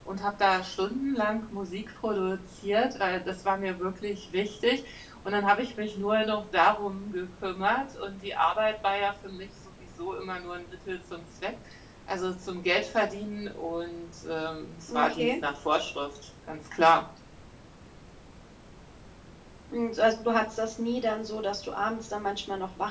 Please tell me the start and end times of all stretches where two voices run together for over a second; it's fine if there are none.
none

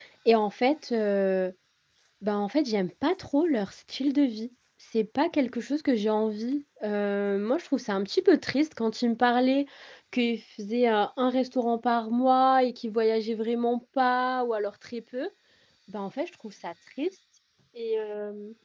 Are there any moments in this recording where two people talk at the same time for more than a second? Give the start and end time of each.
none

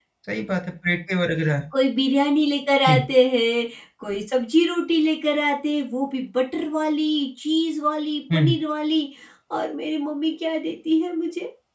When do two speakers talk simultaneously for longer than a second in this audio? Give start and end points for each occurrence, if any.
none

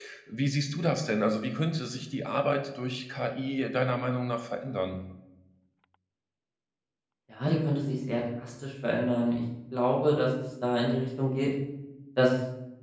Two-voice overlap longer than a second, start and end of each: none

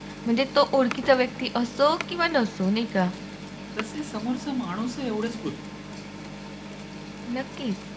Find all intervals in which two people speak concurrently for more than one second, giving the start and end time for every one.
none

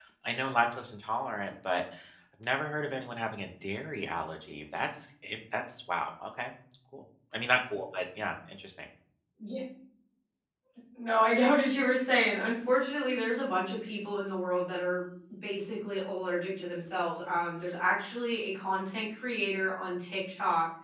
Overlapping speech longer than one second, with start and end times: none

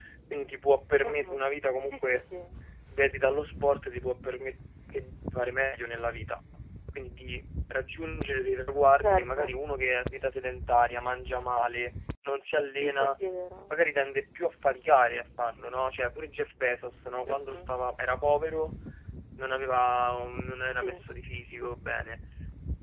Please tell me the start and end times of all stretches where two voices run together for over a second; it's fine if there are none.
none

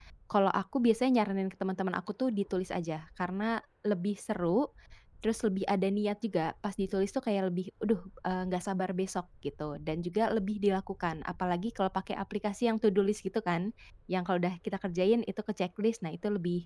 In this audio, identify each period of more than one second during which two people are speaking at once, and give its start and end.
none

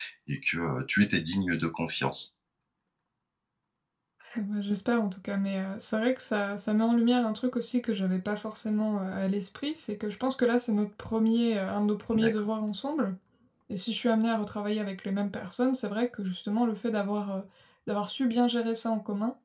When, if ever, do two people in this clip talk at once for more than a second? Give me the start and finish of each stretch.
none

